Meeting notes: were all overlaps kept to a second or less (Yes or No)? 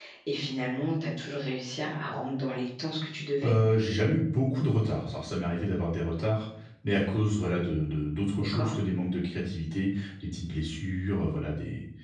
Yes